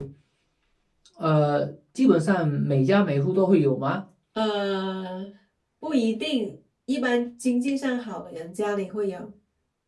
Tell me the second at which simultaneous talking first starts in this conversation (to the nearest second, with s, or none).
none